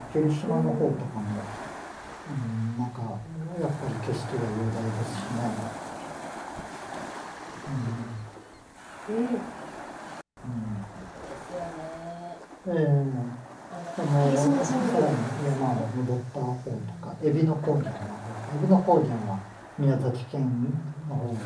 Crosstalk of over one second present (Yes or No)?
Yes